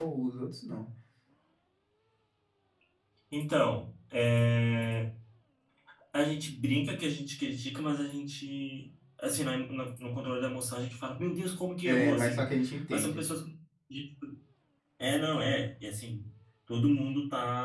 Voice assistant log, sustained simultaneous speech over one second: none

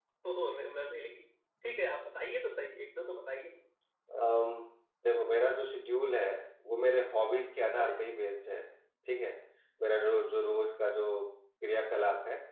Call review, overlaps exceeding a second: none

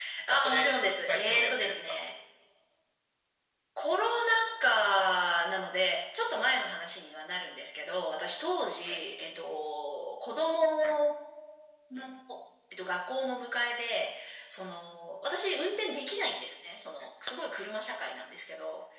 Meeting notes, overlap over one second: present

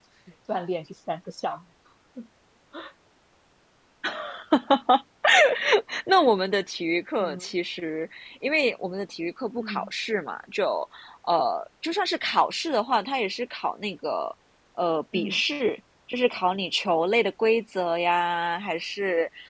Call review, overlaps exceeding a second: none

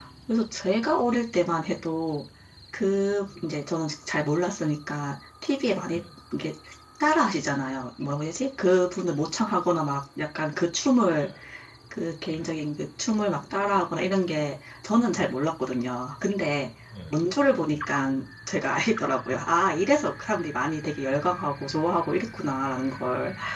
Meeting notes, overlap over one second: none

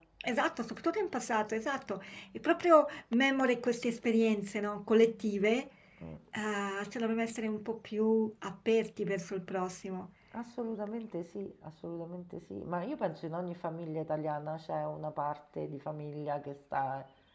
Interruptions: none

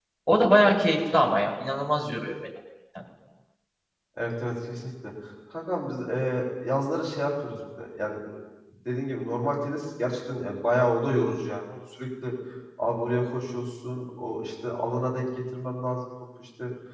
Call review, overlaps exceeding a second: none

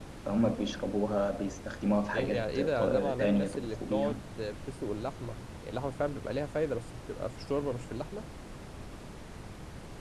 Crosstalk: present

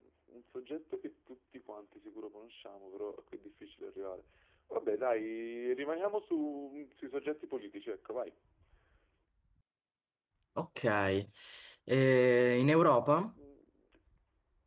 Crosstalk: none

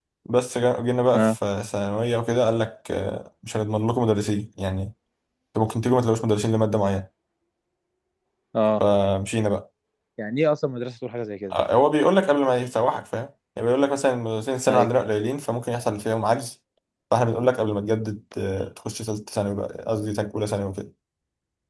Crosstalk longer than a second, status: none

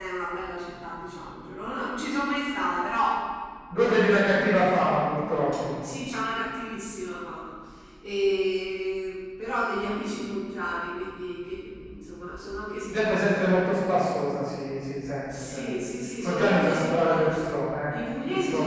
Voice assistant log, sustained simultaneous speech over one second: present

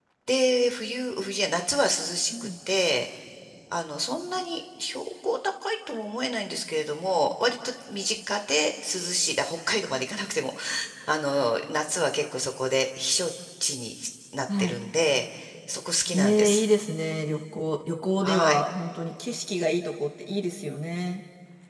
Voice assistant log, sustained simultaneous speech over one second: none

